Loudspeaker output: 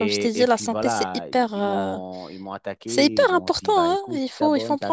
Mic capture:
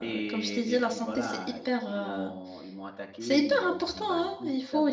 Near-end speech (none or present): none